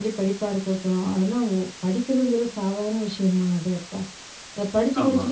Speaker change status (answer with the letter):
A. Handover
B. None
B